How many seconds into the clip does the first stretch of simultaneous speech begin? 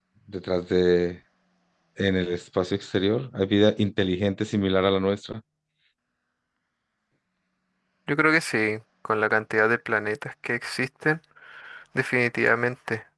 none

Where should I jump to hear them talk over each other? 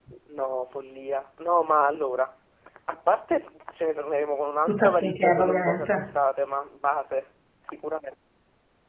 4.7 s

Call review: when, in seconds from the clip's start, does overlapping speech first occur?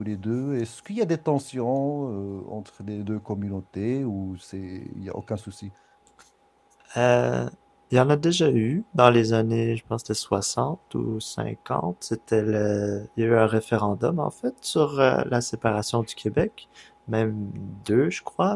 none

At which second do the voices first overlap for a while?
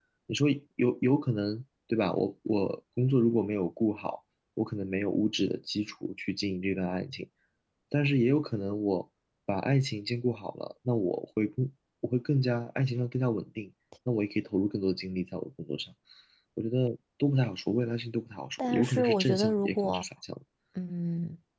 18.6 s

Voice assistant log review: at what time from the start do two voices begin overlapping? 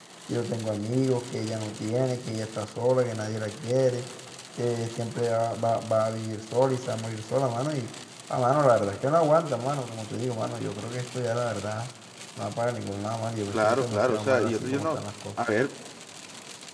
13.5 s

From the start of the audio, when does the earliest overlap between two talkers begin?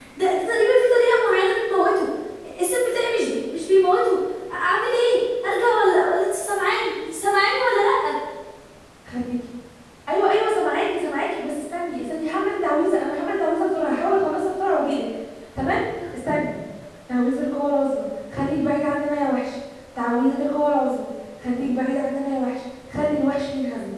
none

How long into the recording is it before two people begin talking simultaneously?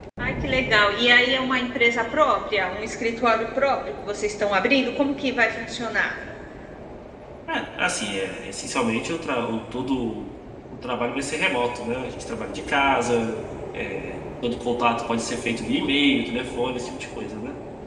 none

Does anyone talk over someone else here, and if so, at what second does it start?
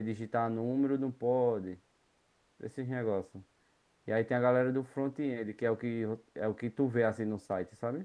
none

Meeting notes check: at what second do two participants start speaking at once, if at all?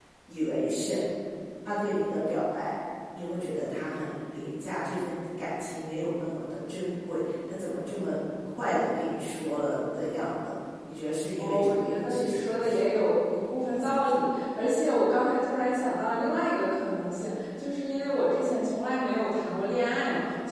11.4 s

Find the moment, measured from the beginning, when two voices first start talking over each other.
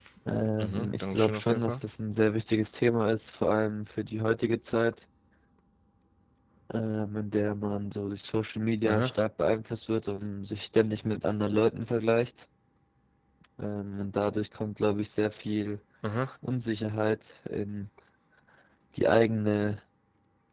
0.6 s

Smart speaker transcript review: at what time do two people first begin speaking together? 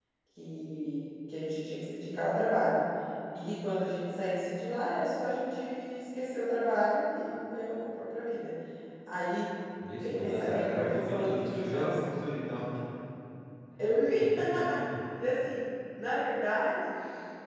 9.9 s

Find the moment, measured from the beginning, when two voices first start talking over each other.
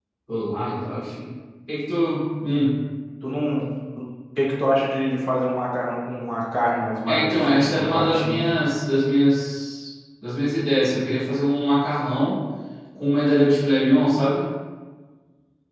7.1 s

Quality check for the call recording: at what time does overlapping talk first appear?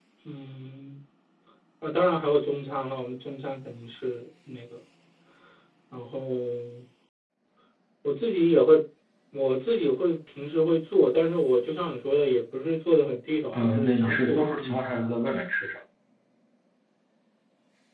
13.5 s

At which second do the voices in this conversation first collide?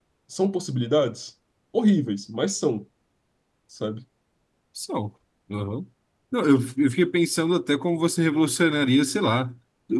none

